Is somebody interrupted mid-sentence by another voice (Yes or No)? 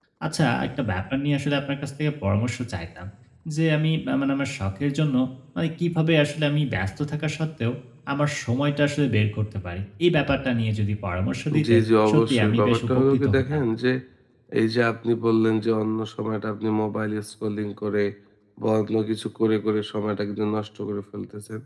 Yes